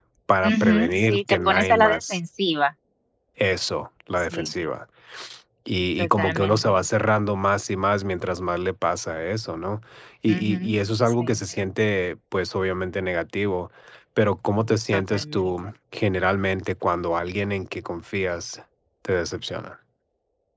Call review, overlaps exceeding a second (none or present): present